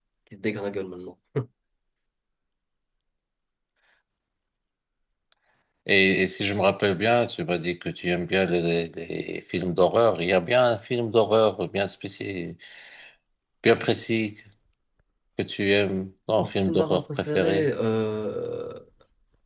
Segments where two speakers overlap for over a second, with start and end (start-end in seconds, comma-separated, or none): 16.4-17.7